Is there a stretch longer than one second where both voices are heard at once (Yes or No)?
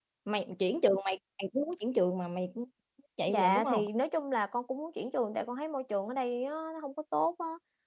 No